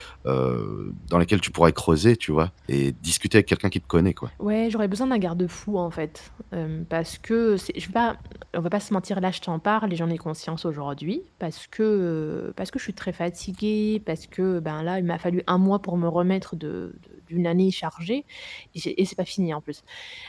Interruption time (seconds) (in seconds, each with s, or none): none